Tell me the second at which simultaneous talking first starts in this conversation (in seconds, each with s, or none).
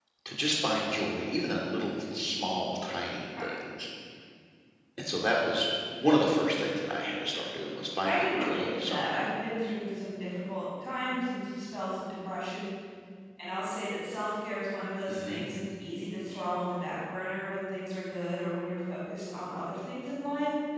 8.1 s